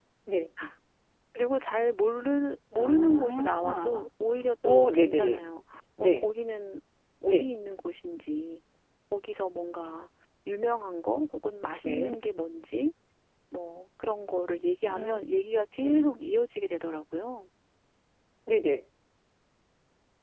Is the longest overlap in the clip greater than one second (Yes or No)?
Yes